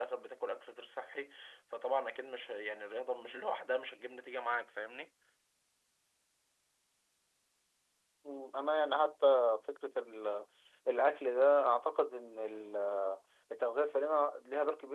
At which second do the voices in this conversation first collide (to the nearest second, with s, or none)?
none